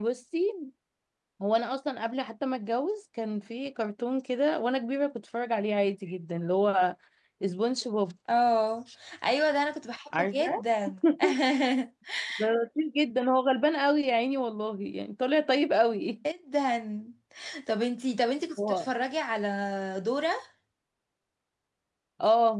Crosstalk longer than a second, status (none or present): none